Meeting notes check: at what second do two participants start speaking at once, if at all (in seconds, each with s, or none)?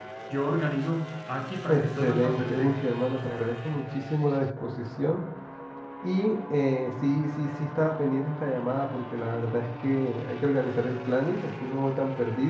1.7 s